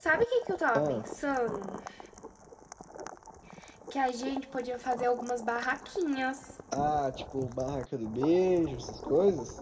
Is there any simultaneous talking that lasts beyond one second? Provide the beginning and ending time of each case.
none

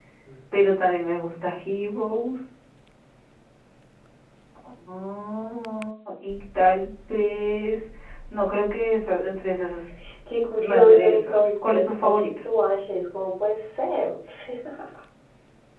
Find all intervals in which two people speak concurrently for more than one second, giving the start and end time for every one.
10.6-12.3

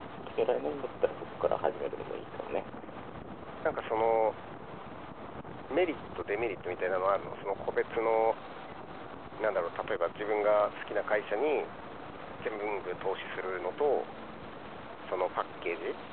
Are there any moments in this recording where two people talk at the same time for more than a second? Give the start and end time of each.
none

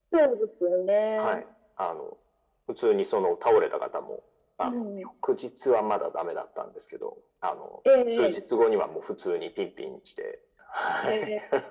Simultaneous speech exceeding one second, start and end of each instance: none

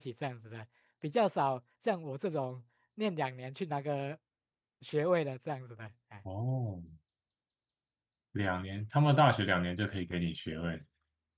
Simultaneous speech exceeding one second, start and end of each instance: none

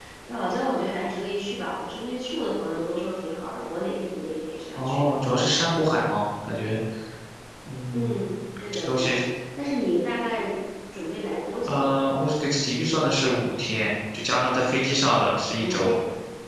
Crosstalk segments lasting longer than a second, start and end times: none

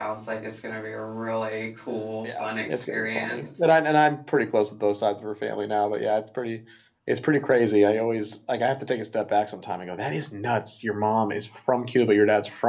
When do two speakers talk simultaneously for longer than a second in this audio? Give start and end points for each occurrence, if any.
2.2-3.5

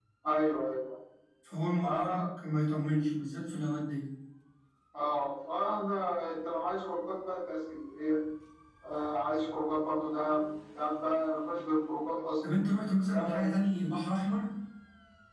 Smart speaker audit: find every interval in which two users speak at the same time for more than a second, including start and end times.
none

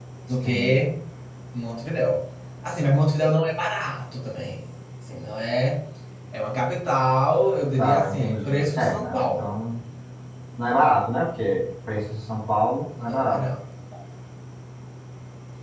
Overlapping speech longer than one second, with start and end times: 7.8-9.5

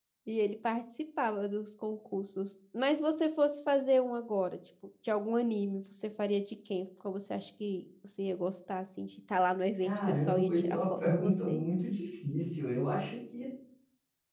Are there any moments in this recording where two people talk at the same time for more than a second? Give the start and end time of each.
9.8-11.7

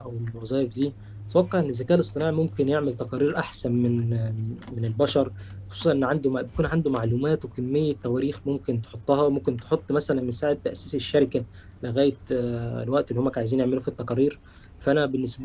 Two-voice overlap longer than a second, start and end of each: none

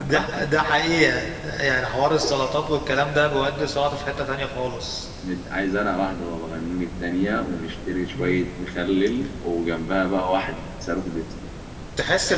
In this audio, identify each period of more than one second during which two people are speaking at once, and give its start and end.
none

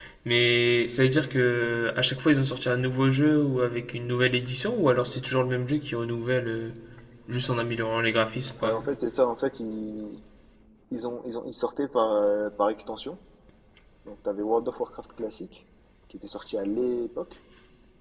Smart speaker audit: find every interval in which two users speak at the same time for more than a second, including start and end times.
none

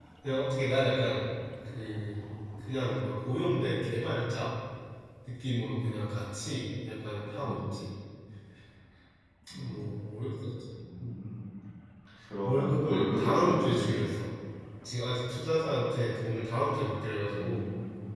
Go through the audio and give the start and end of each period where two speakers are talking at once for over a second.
12.4-13.9

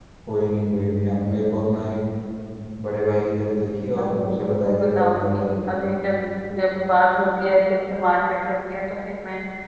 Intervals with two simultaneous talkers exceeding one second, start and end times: 4.0-5.4

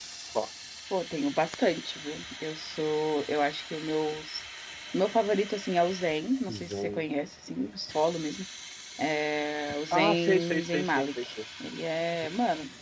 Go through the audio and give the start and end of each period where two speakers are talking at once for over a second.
9.9-11.2

